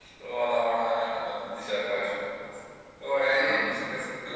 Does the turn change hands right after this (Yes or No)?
No